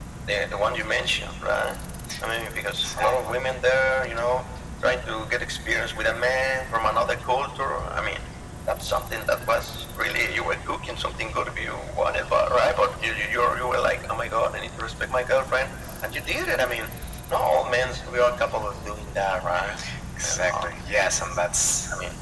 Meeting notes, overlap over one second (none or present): none